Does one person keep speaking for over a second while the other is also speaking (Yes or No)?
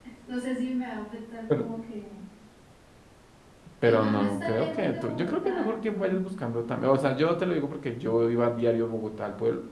Yes